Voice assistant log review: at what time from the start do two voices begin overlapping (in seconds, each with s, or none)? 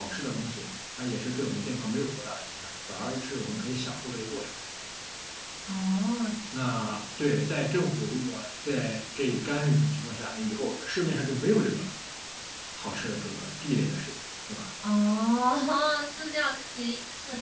none